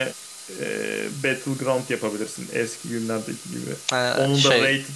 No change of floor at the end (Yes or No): Yes